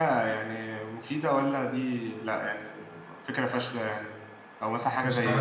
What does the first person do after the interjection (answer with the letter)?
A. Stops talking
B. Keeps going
B